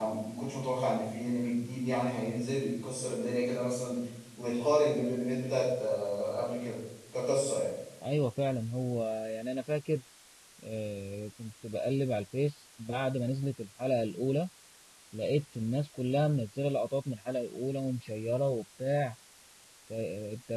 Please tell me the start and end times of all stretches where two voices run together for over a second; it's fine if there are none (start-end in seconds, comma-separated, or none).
none